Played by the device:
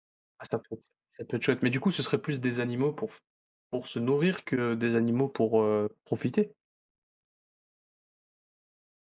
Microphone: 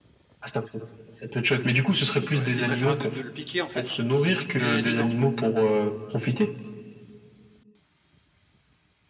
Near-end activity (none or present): present